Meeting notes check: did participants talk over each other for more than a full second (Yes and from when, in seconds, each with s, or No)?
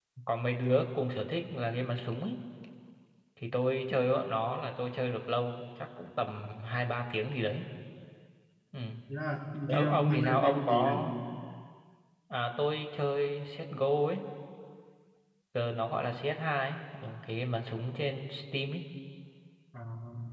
Yes, from 9.7 s